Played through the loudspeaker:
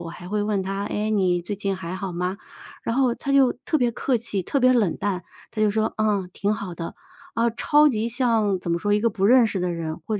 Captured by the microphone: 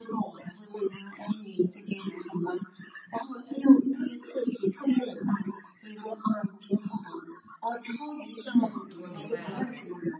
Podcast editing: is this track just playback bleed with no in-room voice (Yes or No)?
No